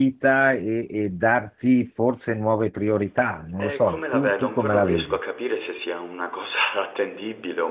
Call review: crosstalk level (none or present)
present